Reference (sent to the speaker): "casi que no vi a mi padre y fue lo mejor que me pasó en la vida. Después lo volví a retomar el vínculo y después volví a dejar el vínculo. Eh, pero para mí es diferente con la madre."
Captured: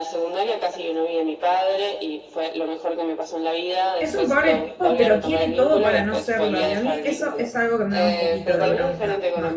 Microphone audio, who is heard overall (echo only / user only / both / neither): both